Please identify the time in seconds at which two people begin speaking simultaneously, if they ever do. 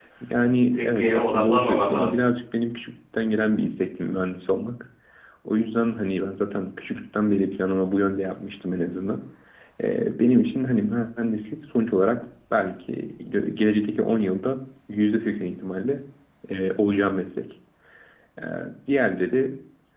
0.7 s

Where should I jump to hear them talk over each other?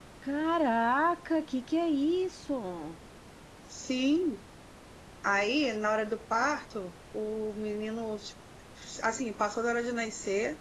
none

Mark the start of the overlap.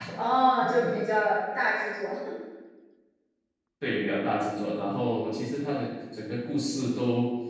none

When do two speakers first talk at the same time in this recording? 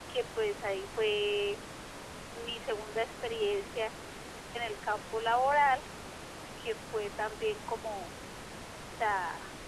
none

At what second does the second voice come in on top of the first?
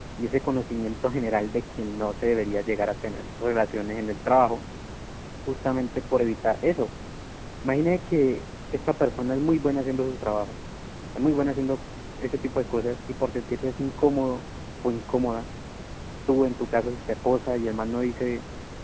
none

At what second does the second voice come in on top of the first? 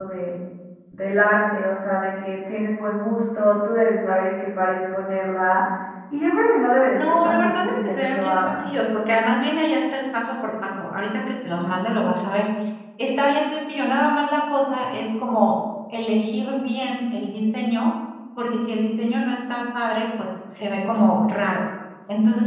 6.9 s

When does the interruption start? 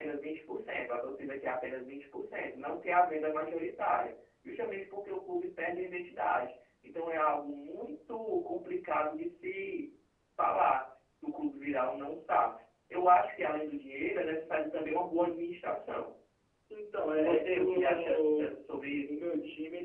17.1 s

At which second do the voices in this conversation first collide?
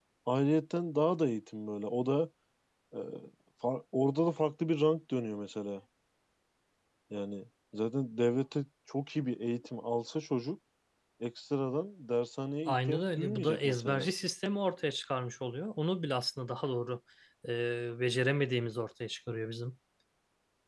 12.7 s

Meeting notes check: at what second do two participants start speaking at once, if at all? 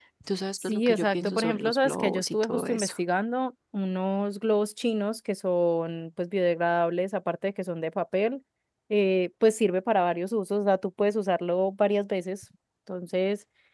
0.6 s

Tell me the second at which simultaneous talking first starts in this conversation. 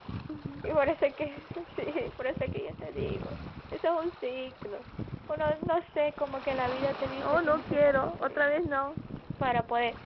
7.2 s

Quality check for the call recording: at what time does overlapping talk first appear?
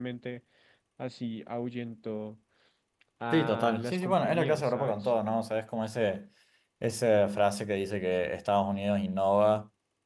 3.3 s

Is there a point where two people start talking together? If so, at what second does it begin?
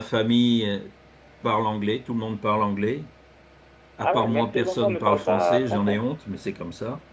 4.0 s

